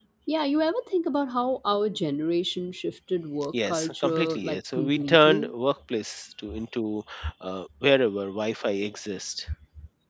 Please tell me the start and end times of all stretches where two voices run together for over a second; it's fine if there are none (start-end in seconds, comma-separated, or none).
3.7-5.5